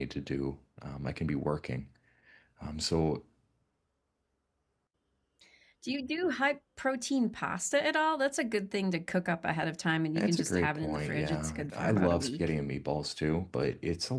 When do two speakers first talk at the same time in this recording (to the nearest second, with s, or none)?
10 s